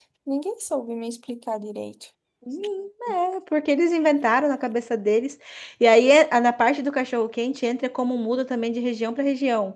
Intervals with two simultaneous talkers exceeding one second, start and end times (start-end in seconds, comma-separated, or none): none